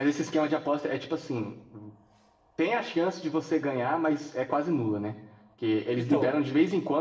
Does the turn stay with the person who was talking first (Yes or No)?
Yes